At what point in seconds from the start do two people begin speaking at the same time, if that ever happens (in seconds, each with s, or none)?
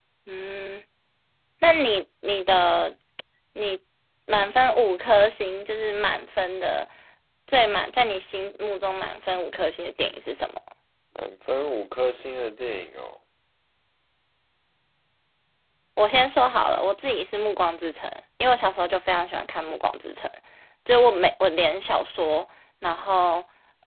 none